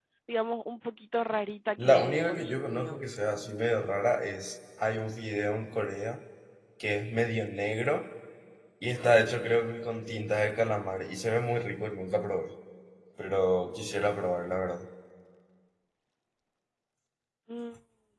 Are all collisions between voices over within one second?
No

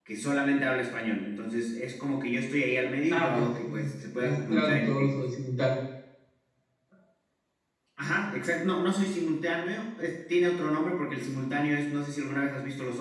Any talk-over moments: Yes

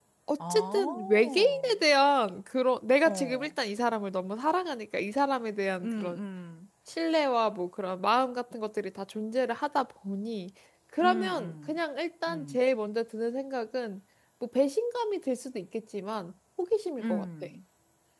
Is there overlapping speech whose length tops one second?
Yes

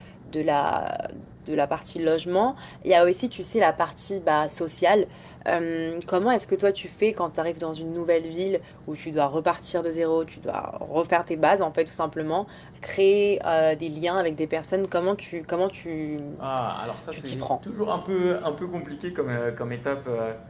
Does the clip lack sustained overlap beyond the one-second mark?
Yes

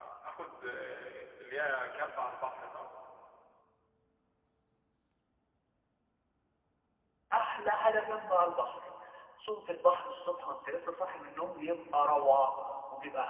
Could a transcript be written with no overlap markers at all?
Yes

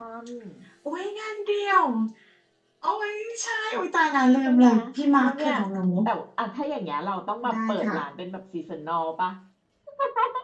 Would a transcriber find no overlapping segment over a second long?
Yes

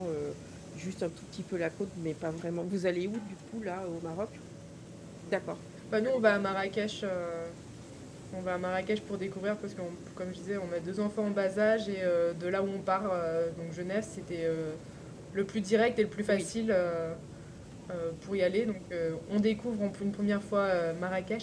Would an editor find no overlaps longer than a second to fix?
Yes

